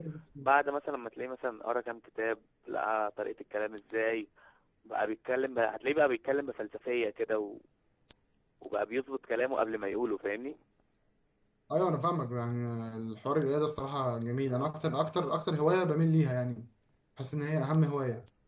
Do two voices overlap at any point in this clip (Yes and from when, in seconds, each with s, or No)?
No